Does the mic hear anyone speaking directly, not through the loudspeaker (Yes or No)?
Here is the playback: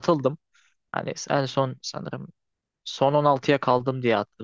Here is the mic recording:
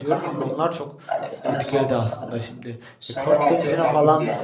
Yes